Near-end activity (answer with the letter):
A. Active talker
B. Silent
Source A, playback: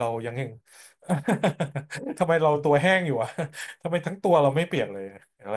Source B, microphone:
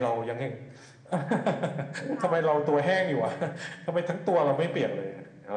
A